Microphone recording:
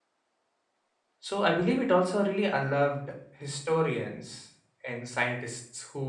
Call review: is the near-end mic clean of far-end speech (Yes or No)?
Yes